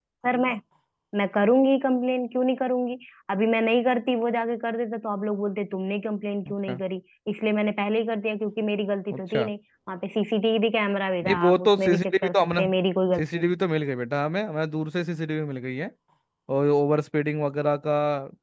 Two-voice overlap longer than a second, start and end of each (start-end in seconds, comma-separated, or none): 11.2-12.6